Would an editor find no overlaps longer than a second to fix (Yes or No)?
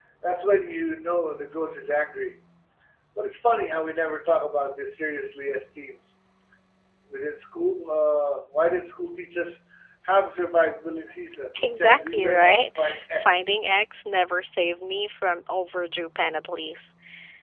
No